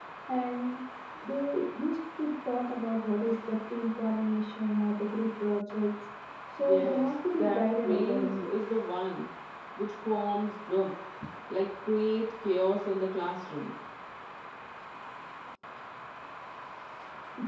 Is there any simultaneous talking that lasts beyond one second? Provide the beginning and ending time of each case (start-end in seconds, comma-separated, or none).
6.6-8.5